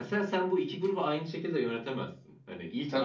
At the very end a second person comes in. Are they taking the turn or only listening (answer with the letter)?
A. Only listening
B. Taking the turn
A